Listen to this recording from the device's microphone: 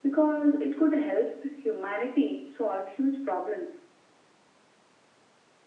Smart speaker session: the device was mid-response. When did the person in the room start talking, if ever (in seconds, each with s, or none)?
none